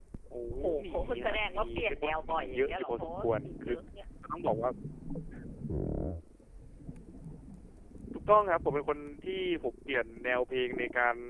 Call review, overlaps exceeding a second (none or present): present